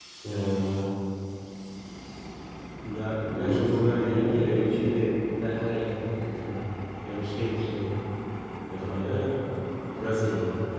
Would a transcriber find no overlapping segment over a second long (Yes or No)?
No